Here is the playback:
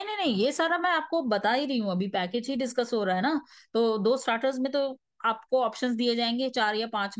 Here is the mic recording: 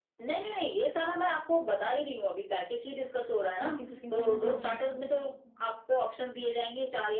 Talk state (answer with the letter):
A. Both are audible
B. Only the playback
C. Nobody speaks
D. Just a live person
A